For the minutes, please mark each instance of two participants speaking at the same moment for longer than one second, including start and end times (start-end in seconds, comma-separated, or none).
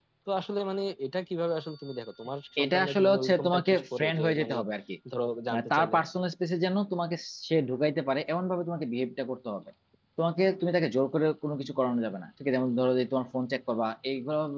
2.6-4.6